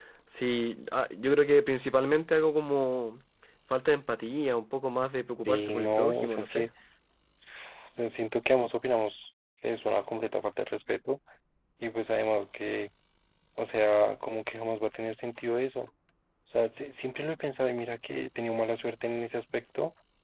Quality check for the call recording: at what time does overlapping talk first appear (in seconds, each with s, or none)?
5.4 s